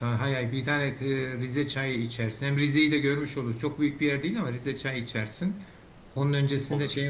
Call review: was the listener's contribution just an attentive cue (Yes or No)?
Yes